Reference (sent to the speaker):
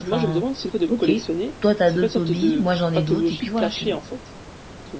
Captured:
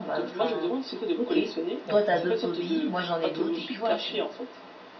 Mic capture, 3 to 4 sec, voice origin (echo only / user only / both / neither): echo only